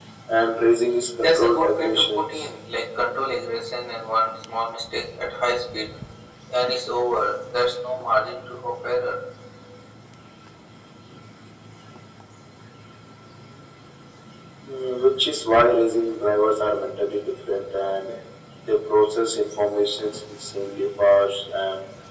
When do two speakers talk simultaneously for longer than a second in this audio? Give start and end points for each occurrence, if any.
1.2-2.4

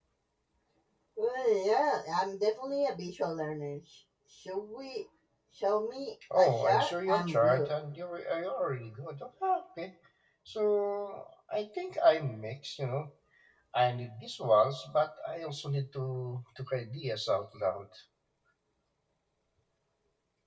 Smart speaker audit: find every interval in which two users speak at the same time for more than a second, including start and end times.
6.4-7.7

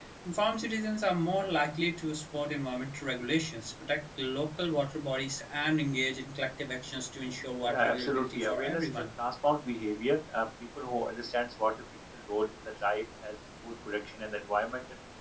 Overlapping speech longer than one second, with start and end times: 7.6-9.0

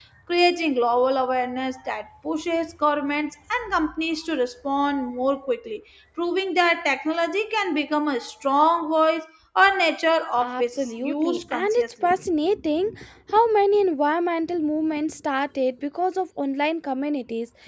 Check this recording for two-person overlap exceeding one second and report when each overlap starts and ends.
10.4-12.1

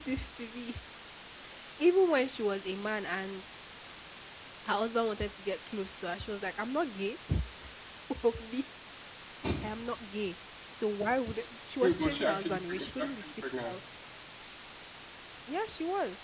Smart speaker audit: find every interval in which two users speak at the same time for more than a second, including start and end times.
11.8-13.8

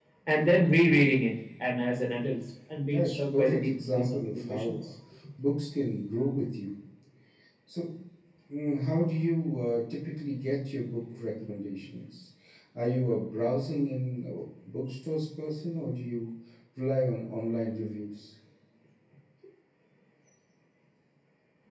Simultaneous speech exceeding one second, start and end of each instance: 2.9-4.8

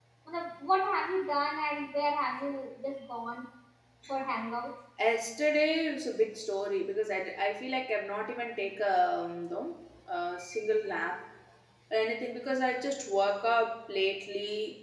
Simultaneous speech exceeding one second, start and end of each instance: none

